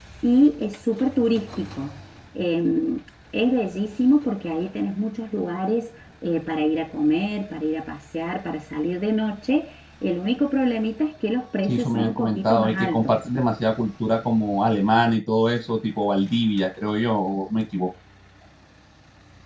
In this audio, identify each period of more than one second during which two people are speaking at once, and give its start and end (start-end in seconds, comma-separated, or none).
11.7-13.1